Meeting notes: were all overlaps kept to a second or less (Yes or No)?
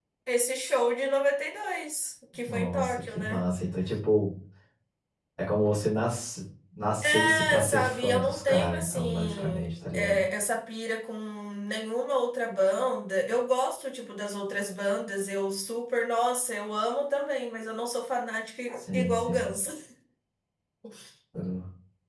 No